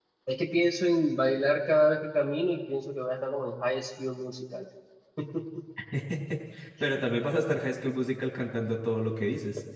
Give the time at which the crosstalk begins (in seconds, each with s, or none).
none